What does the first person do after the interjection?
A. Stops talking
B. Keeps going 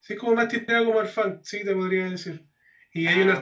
B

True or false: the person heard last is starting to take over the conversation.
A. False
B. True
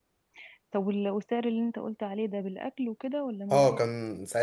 B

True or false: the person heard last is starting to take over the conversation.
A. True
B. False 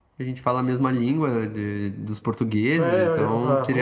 A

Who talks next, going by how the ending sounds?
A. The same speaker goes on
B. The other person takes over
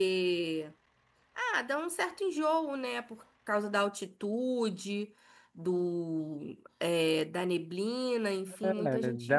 B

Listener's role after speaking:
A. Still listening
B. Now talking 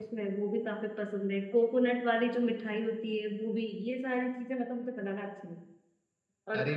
A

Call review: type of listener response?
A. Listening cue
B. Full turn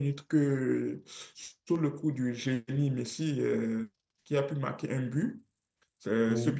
A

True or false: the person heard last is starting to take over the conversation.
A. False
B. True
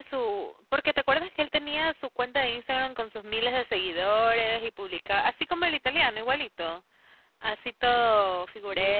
B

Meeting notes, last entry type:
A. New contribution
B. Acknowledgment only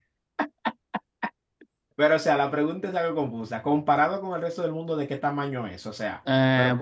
A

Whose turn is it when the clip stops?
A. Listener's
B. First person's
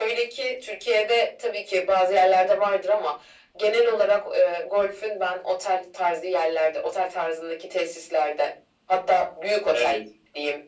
B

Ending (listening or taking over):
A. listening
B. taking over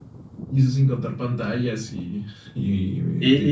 B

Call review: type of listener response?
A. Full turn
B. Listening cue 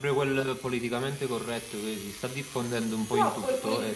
A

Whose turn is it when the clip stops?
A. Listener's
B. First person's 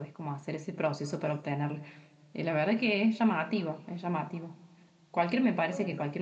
B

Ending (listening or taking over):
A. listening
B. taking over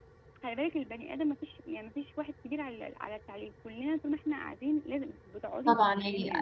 B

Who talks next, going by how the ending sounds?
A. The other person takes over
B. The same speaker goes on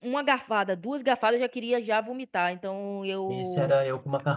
A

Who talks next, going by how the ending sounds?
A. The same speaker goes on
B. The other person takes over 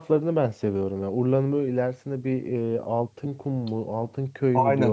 B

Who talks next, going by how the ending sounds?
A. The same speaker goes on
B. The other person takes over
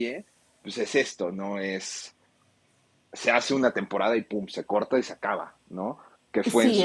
A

